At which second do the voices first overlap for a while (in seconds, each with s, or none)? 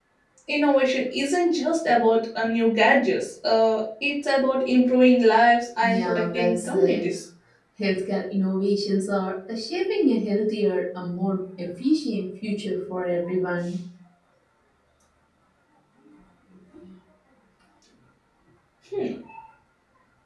5.8 s